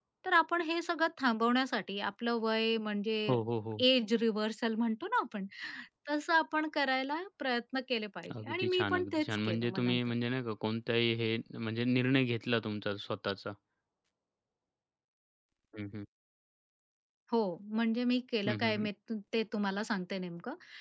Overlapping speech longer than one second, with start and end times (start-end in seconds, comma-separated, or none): 8.4-10.0